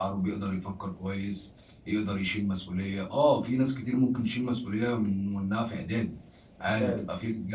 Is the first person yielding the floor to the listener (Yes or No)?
No